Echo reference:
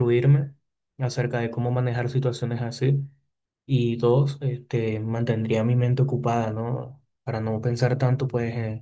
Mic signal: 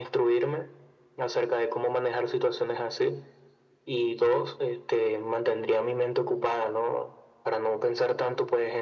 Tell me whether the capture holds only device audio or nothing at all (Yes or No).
Yes